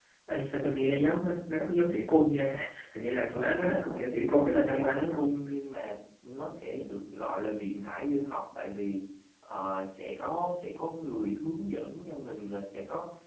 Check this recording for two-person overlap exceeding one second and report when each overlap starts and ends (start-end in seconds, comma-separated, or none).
3.3-5.3